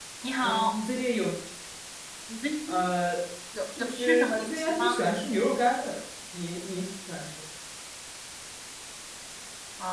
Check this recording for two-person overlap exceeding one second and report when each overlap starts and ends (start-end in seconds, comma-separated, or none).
3.8-5.0